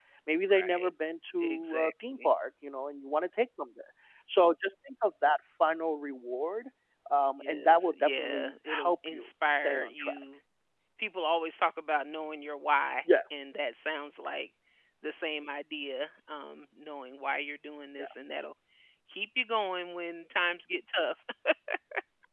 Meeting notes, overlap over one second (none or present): present